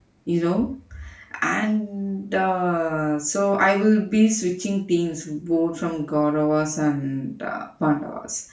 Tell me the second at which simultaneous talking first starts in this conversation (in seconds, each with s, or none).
none